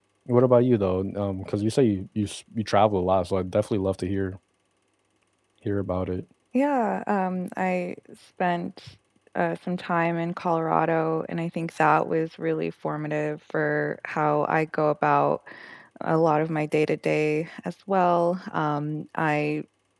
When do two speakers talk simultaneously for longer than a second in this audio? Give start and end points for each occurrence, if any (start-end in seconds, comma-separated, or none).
none